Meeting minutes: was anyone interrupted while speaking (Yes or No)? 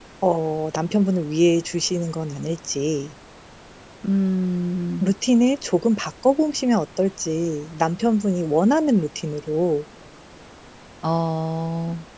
No